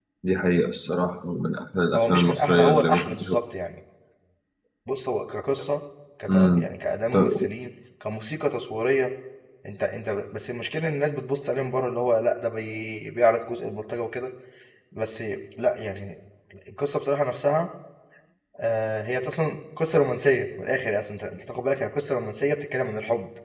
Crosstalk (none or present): present